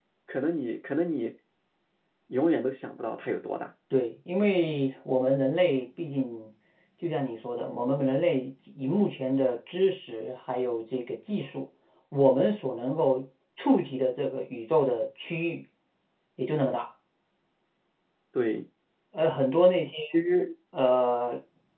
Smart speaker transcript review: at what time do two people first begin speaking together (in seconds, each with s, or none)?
none